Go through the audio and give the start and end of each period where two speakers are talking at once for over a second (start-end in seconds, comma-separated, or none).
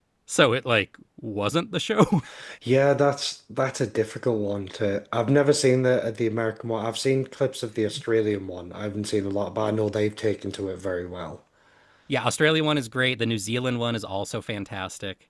none